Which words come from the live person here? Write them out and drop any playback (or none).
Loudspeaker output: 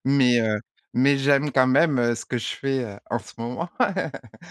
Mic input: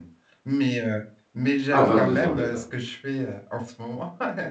Ah 22 ans, d'accord.